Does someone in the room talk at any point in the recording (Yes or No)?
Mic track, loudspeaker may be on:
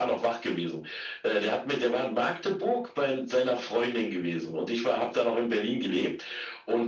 No